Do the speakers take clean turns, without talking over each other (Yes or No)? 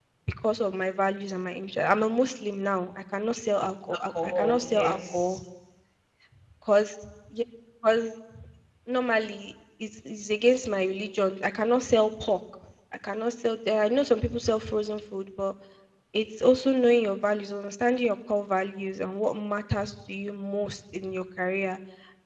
No